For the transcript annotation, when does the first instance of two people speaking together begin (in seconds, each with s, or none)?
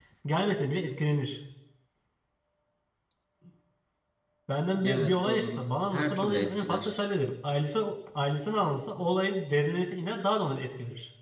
4.8 s